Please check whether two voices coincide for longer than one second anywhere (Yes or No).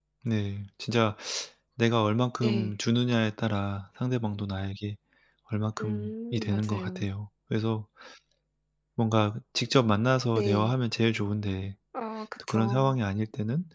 Yes